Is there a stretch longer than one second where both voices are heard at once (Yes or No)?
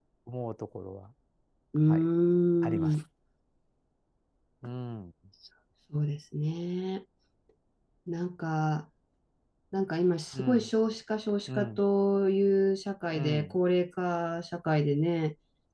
No